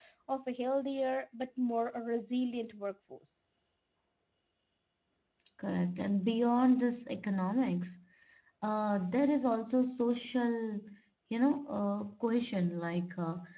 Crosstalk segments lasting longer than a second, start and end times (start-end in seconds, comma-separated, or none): none